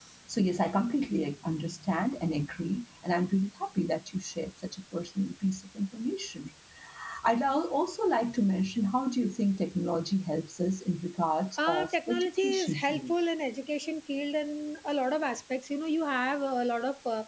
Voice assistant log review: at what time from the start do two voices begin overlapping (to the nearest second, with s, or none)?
12 s